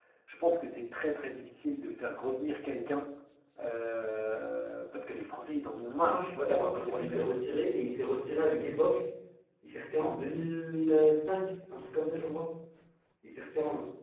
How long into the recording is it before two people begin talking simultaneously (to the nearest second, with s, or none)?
6 s